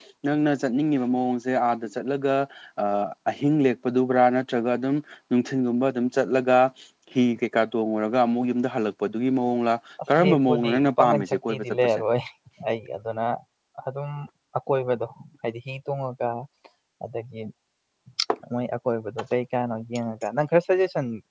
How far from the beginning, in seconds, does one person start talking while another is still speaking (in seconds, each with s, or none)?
10.2 s